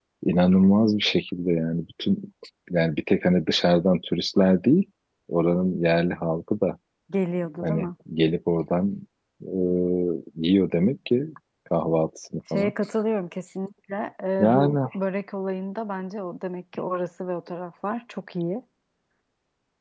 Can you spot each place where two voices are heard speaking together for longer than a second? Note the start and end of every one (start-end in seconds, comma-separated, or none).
none